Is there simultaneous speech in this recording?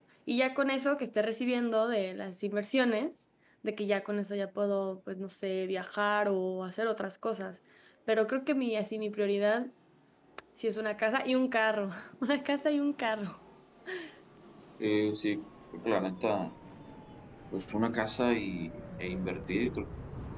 No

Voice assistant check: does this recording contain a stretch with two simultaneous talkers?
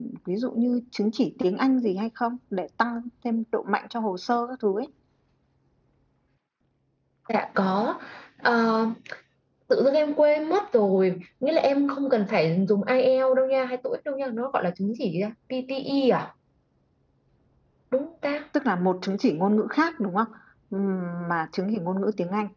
No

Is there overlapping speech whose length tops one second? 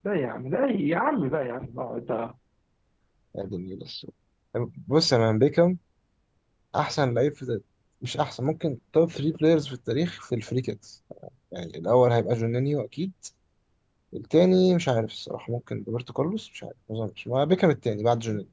No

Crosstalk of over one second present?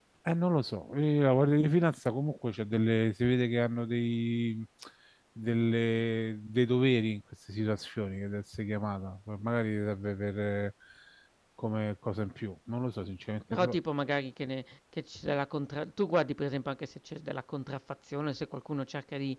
No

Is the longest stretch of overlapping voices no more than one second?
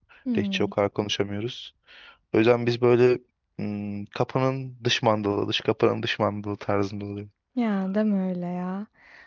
Yes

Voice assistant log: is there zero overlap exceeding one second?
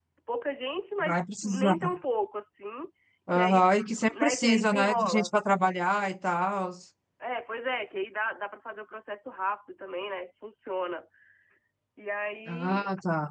No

